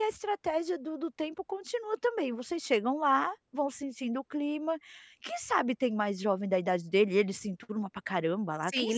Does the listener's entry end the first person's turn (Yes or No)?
Yes